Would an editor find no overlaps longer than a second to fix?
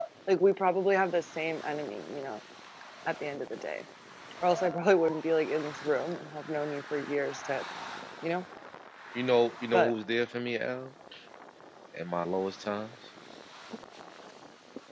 Yes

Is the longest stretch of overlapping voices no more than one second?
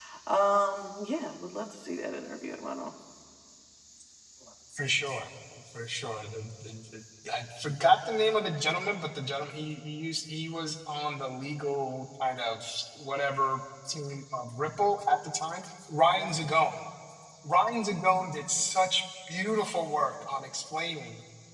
Yes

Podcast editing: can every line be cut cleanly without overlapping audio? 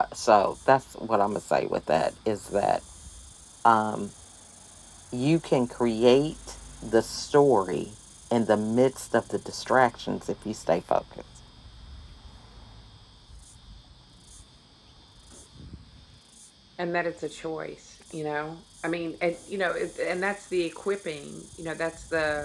Yes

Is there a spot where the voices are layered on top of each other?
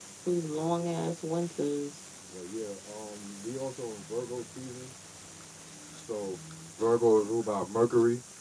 No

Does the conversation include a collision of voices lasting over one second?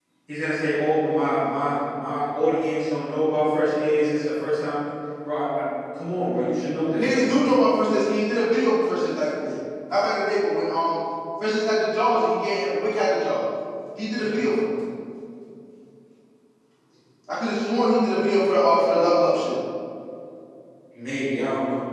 No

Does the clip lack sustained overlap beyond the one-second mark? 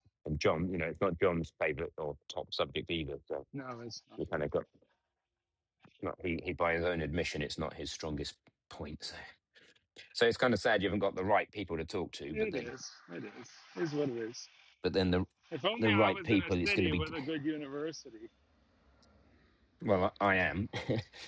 No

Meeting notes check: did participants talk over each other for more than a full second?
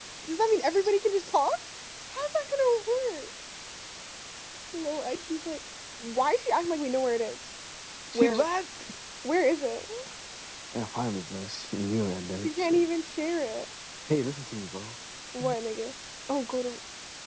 No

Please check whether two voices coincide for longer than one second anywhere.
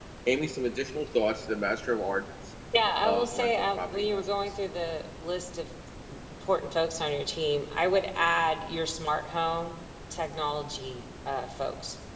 Yes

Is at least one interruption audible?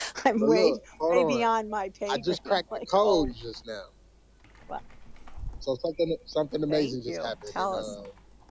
Yes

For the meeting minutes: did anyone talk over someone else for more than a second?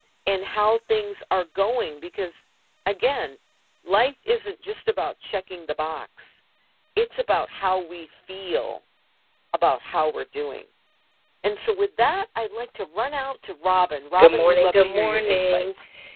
Yes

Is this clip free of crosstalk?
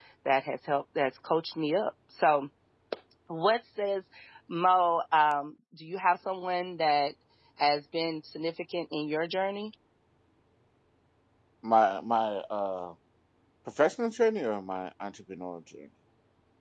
Yes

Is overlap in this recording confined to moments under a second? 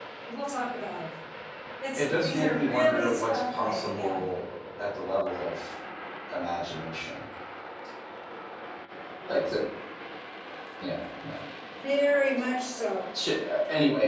No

